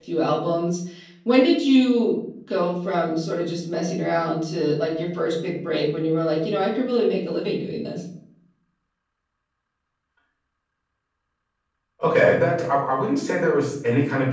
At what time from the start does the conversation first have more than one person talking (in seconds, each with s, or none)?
none